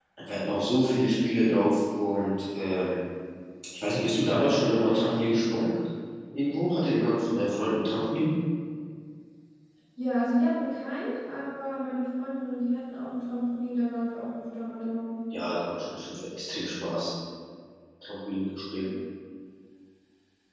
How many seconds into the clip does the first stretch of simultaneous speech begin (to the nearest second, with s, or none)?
none